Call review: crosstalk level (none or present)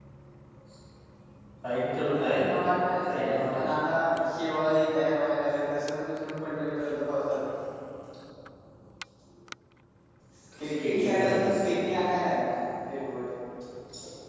present